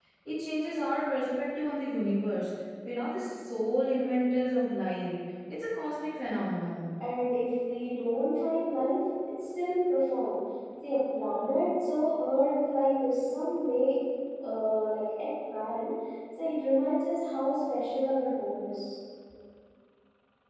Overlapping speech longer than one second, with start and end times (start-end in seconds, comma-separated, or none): none